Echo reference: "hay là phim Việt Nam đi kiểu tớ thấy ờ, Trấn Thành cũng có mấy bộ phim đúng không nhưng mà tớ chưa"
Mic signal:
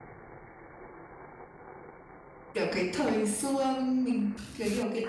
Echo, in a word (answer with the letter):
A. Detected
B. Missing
B